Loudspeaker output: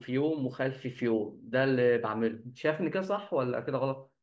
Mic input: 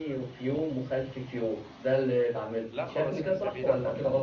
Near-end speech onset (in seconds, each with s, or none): 2.7 s